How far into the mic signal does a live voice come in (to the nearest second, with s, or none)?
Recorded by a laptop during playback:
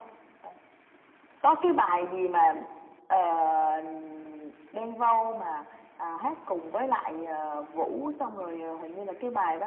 none